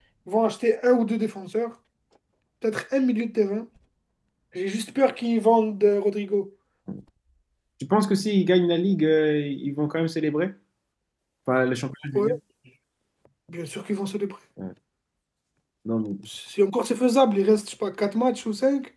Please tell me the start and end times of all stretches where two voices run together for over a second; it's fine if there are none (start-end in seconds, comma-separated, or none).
none